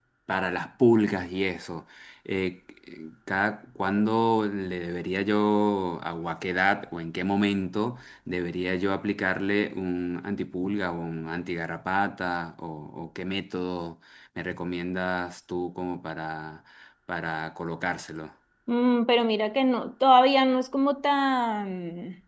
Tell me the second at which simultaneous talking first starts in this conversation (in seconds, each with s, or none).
none